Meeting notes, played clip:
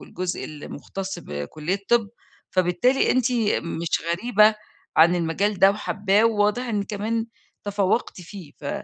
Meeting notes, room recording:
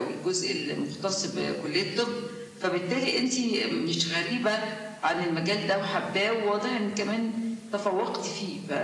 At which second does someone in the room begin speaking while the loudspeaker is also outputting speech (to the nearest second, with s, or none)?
none